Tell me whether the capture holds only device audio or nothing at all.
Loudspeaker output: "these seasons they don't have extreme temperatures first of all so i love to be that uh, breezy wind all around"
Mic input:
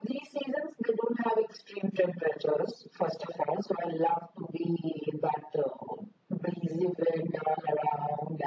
Yes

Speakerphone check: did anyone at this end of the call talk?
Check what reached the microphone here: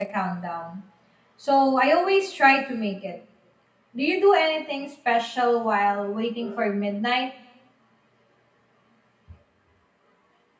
Yes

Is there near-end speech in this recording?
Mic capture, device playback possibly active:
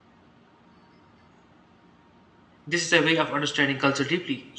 Yes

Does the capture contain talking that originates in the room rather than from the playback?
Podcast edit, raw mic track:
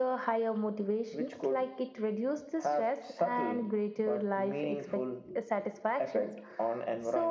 No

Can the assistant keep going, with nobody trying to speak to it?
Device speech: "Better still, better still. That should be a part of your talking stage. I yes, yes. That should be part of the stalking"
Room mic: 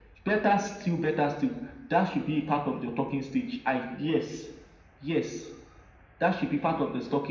Yes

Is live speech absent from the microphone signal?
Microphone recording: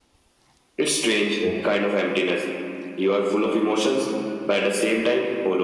No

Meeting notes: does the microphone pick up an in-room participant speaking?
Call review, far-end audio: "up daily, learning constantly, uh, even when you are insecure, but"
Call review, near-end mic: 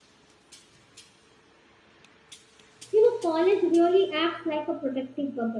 Yes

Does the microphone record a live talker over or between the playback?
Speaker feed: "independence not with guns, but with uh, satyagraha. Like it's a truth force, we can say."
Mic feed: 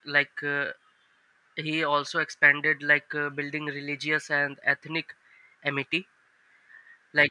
Yes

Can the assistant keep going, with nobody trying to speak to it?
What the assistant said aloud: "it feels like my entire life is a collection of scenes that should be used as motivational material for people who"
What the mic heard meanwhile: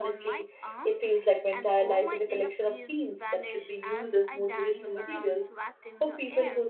No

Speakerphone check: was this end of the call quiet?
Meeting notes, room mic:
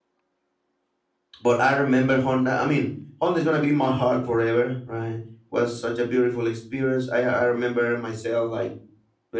No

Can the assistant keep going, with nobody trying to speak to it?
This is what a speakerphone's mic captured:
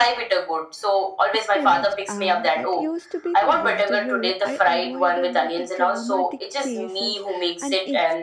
No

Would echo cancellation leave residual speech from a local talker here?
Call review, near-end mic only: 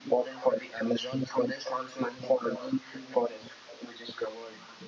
No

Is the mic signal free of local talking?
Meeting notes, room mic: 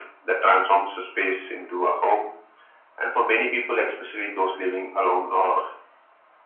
Yes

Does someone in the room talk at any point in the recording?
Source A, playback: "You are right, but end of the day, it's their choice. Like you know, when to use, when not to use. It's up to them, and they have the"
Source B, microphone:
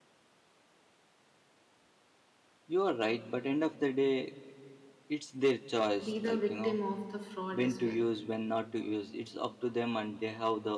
Yes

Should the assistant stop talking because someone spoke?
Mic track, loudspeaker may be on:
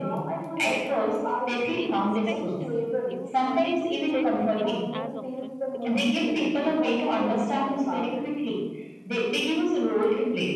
Yes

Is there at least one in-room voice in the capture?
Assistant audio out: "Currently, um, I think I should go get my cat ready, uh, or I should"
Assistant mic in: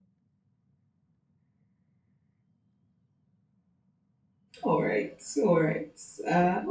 Yes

